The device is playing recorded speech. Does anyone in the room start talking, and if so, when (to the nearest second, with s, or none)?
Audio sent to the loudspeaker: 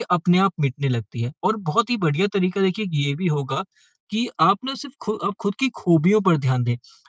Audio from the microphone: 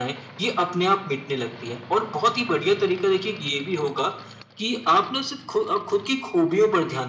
none